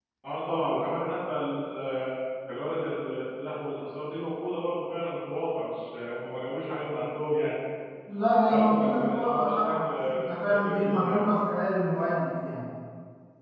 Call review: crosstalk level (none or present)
present